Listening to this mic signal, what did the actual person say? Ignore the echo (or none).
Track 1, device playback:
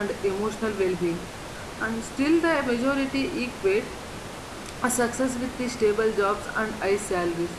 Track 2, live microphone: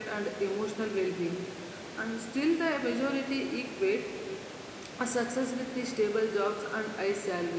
none